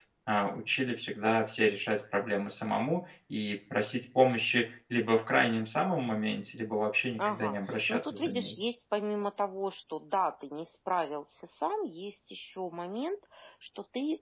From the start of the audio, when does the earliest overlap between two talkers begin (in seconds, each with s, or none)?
7.2 s